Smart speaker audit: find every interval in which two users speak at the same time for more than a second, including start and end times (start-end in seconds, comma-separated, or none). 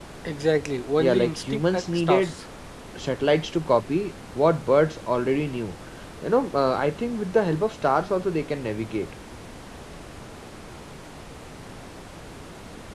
1.0-2.3